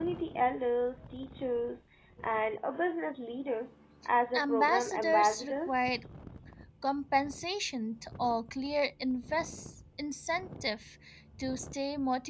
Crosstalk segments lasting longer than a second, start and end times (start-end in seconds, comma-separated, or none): 4.3-5.9